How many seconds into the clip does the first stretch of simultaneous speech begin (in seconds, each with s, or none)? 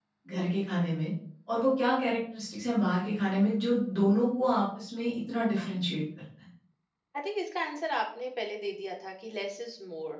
none